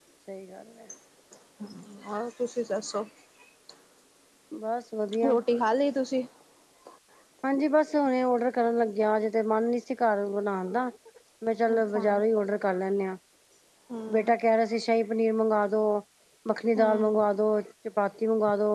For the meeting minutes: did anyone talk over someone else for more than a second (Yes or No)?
No